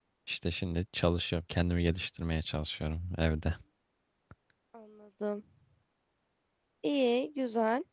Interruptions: none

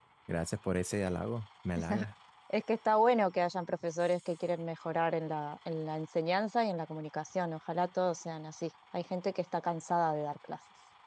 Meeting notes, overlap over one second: none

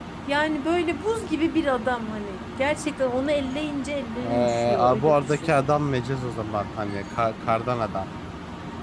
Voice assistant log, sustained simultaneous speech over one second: present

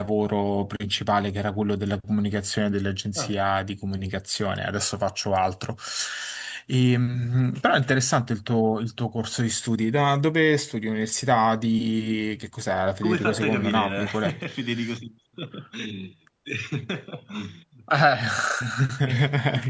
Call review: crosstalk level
present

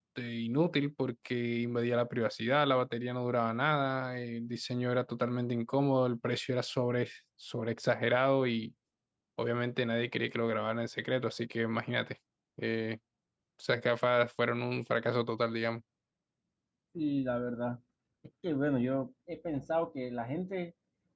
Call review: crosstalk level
none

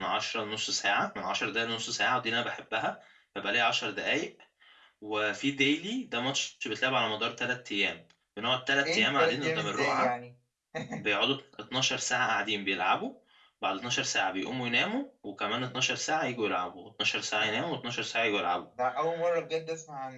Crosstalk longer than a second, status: present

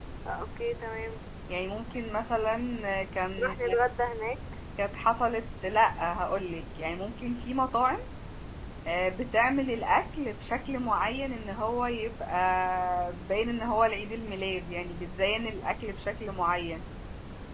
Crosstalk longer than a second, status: none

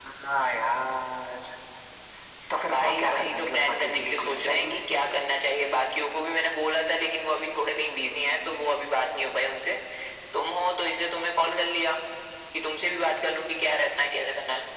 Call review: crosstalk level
present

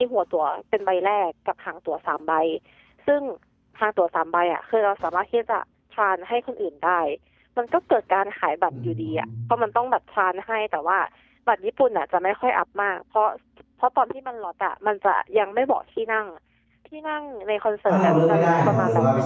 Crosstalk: present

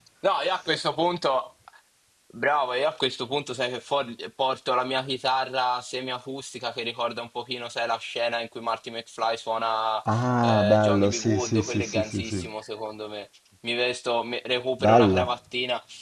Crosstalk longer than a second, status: present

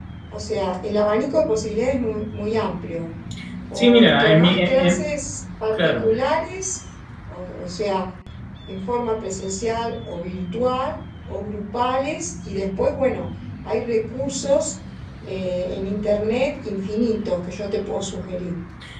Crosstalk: present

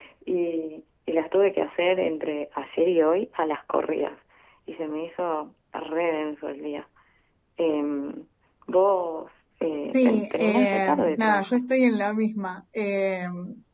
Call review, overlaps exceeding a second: present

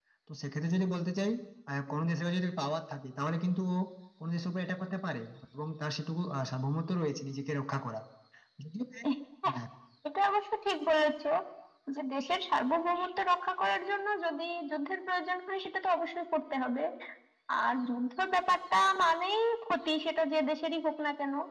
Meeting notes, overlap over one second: none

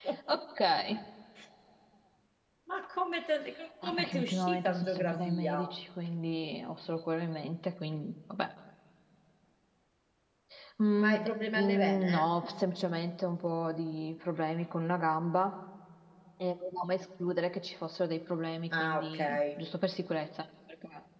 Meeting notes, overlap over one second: present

